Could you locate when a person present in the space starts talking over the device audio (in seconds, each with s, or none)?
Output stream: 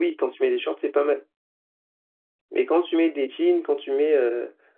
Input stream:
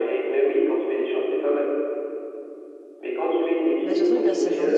3.8 s